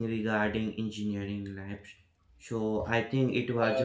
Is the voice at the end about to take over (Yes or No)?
Yes